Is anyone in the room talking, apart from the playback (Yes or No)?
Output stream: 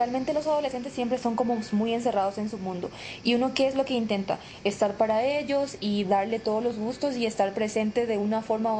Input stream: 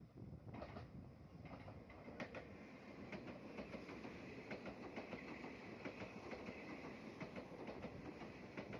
No